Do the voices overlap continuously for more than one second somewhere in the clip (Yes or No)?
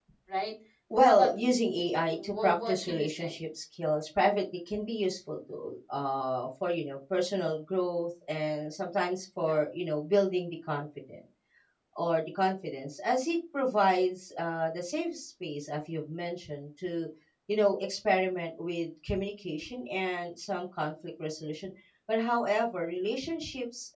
Yes